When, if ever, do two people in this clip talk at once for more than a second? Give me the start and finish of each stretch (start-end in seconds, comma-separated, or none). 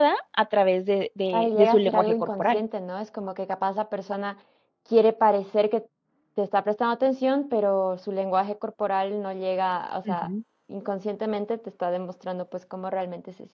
1.3-2.6